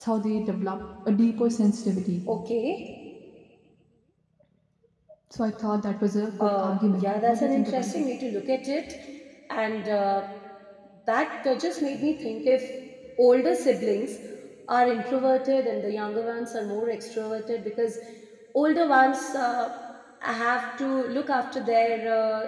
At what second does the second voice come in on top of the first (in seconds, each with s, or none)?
6.4 s